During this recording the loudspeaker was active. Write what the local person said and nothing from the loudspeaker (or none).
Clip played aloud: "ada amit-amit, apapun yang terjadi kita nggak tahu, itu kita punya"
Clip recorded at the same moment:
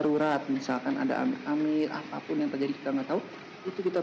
none